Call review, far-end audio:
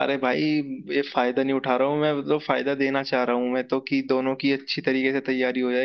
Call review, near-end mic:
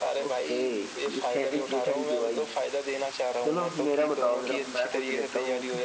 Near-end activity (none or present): present